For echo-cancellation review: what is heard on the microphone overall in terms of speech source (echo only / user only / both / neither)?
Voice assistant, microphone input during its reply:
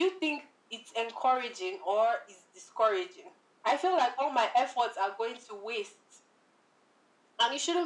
echo only